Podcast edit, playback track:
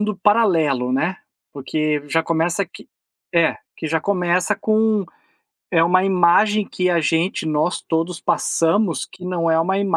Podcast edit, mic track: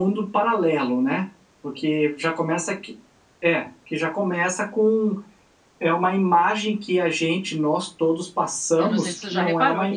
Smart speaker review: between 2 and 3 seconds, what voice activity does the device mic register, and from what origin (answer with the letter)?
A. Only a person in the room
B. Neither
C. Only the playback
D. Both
C